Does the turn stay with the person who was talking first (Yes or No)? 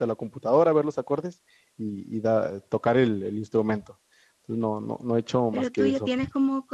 No